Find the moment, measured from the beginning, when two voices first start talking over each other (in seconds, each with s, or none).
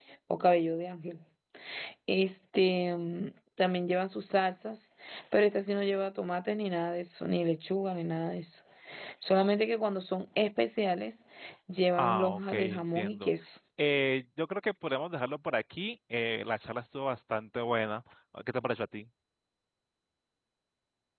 11.9 s